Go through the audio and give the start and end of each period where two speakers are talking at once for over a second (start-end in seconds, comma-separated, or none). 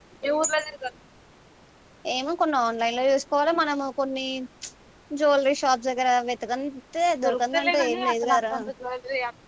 7.2-8.6